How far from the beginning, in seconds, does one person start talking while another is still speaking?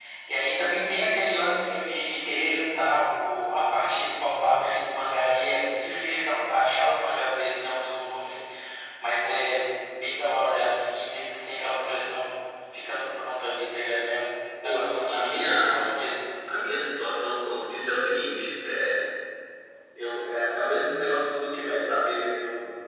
14.6 s

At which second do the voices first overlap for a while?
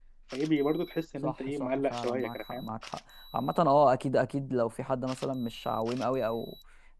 1.2 s

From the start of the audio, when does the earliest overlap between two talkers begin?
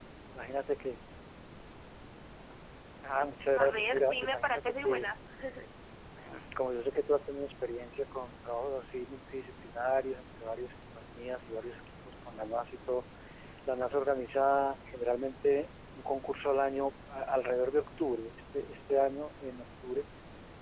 3.6 s

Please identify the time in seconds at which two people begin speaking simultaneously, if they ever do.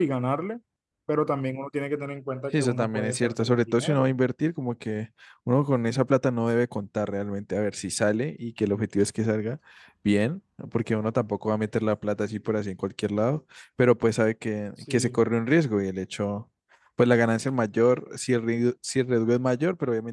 2.5 s

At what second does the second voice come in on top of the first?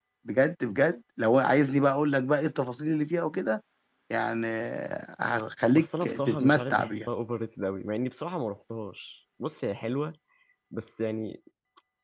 5.8 s

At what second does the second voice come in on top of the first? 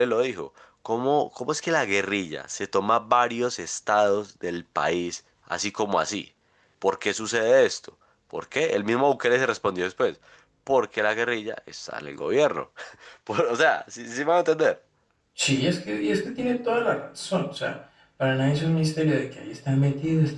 none

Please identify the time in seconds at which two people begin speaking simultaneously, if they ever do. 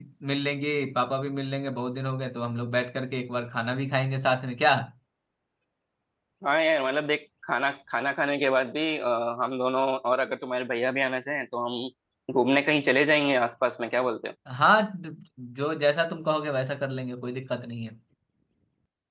none

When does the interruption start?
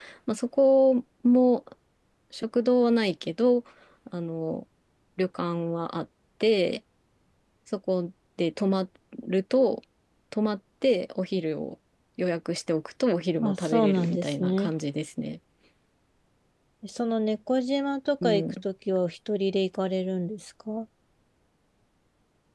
13.4 s

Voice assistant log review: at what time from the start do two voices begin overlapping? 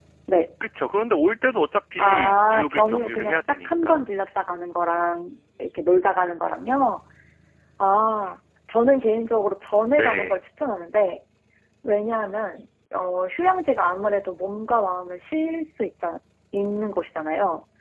2.0 s

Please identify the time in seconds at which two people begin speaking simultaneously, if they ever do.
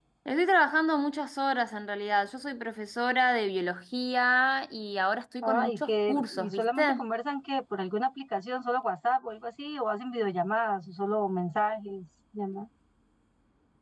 5.4 s

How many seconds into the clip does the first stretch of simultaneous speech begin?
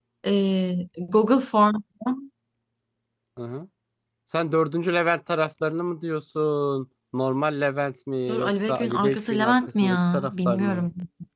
8.3 s

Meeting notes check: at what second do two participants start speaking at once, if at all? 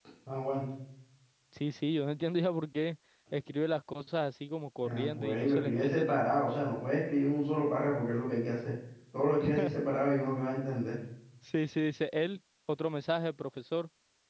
4.8 s

